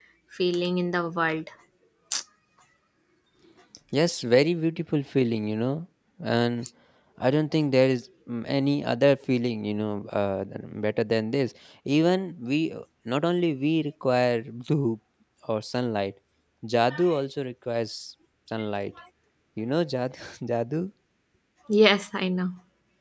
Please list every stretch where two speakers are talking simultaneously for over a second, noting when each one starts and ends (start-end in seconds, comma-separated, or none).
none